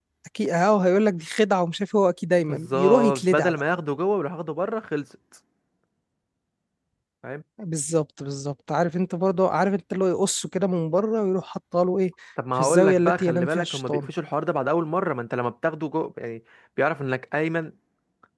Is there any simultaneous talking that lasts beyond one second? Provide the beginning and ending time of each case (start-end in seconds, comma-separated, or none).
2.4-3.6, 12.6-14.0